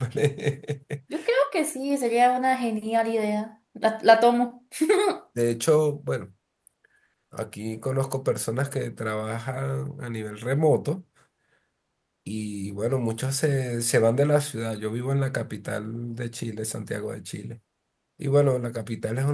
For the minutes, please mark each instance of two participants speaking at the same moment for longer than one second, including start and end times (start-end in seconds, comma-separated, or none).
none